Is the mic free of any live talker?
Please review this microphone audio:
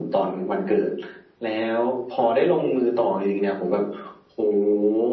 Yes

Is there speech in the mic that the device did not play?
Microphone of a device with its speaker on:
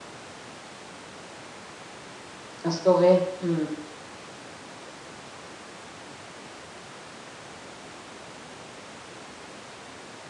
Yes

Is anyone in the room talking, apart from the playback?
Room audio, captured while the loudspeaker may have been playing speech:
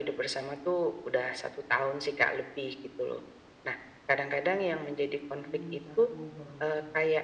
Yes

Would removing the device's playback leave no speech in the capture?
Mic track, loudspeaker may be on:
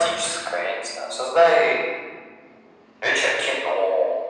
Yes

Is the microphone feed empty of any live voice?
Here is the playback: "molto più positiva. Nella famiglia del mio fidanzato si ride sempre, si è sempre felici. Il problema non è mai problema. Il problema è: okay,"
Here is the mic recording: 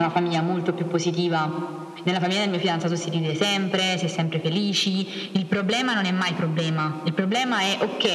Yes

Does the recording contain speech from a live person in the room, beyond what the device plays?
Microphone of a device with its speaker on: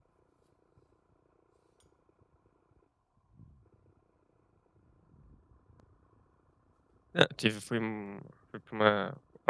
Yes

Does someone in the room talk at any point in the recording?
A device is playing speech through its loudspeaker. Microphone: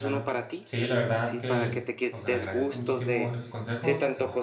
Yes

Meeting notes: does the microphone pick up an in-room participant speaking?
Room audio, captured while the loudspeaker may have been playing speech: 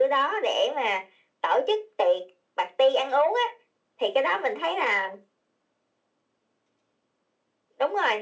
No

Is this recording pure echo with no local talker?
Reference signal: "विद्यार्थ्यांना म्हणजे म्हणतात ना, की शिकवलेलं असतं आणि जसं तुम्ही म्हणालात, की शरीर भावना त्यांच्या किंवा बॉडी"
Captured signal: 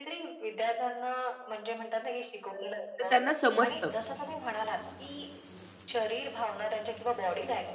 No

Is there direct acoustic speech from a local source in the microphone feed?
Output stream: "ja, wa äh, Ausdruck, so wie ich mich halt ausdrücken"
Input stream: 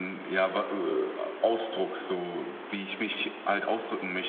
No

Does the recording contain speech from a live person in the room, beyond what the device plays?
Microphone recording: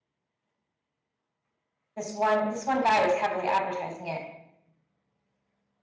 Yes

